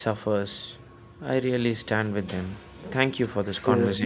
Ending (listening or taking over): taking over